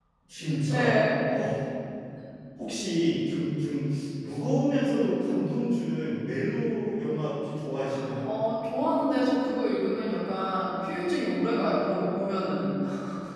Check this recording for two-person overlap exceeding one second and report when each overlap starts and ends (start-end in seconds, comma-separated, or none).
none